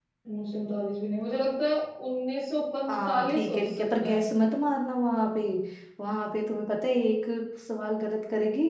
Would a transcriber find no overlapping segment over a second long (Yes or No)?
No